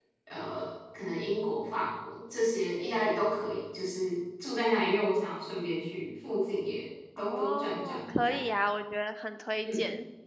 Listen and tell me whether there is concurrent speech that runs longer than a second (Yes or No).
Yes